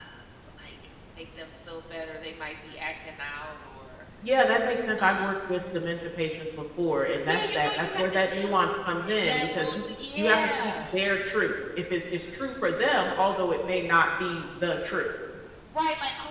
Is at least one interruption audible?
Yes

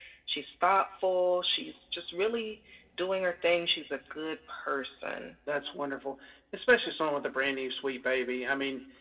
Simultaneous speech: No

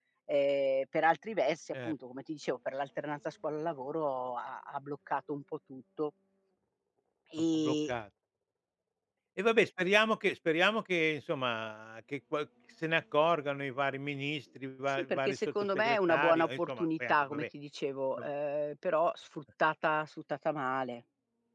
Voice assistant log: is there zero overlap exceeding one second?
No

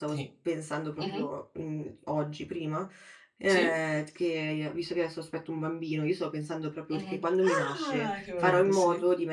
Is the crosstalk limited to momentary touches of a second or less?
No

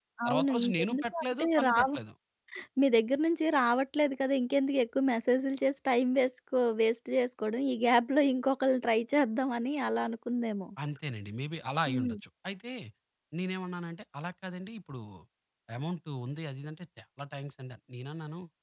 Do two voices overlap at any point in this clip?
Yes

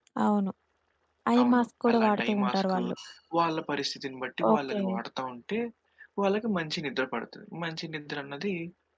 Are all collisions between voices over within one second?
No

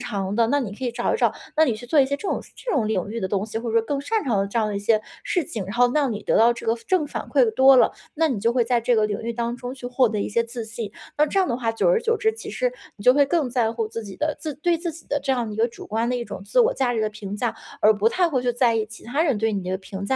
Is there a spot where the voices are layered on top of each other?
No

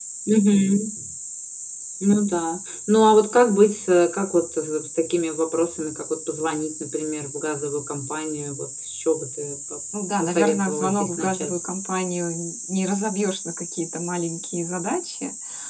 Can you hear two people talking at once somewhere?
Yes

